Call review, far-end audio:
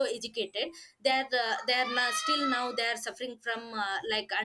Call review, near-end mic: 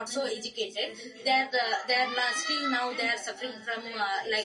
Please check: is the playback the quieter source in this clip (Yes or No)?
No